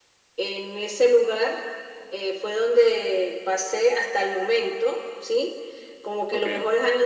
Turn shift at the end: No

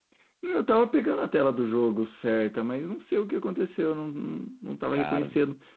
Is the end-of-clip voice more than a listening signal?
No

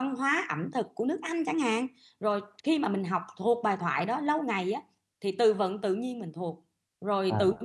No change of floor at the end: Yes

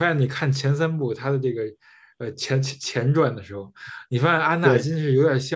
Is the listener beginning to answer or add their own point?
No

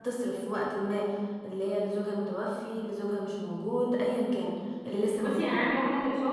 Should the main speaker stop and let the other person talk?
Yes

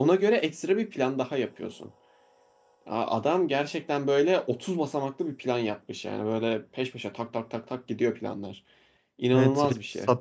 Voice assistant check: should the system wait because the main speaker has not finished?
No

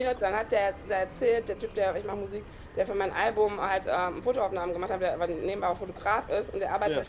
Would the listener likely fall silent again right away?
Yes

